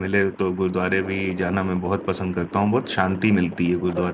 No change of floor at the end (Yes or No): No